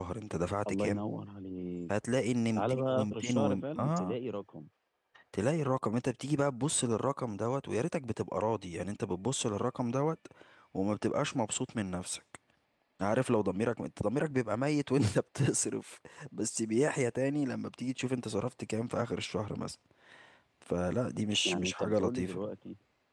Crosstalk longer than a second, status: present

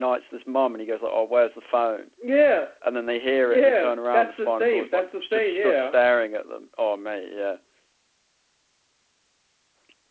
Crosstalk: present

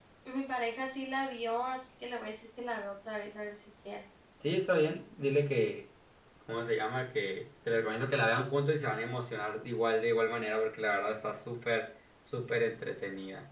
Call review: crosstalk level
none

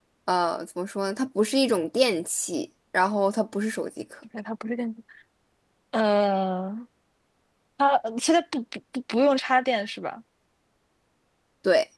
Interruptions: none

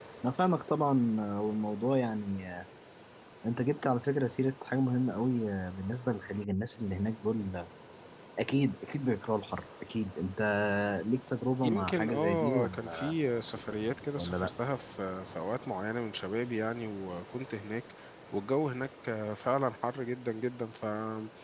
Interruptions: present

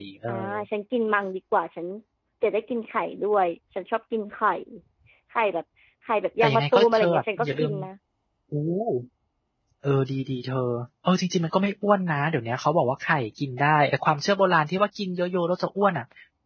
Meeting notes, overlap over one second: present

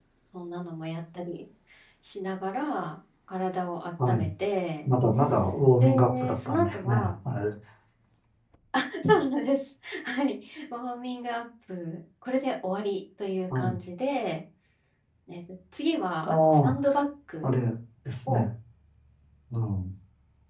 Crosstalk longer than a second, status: present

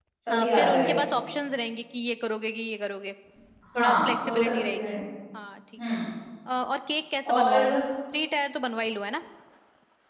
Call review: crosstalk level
present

